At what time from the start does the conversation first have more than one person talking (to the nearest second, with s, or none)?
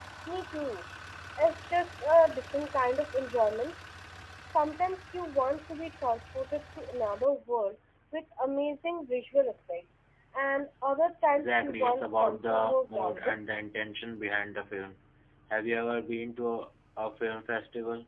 11 s